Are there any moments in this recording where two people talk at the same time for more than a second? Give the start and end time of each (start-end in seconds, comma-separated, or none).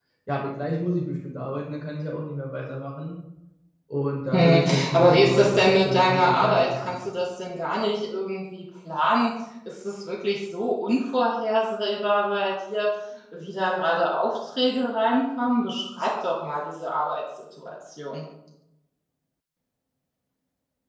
4.3-6.9